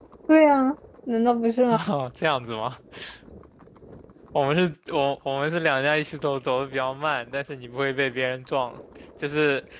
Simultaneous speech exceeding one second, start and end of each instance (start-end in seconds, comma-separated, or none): none